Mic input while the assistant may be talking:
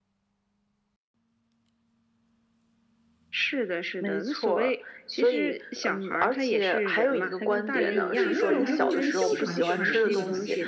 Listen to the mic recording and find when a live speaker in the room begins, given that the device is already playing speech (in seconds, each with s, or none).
7.7 s